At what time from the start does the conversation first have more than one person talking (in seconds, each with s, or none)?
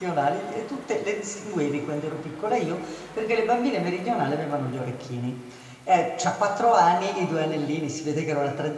none